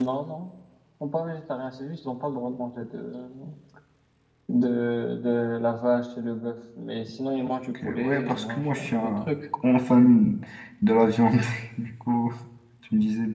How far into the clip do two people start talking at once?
8 s

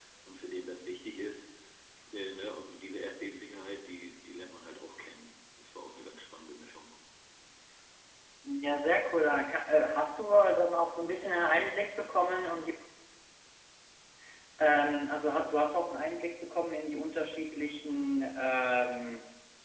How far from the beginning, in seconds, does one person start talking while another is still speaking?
none

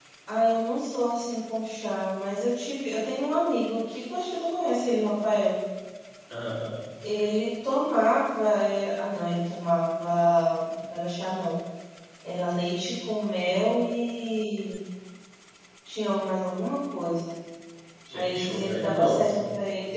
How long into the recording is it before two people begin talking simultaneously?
18 s

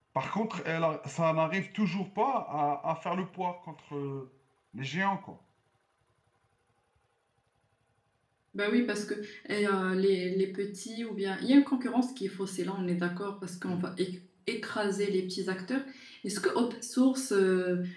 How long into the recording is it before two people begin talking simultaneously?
none

